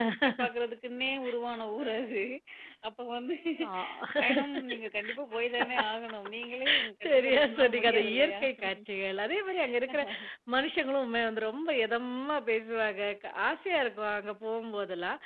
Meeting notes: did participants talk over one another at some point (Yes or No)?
Yes